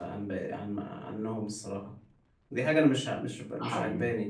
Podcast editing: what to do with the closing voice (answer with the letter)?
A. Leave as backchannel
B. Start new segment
A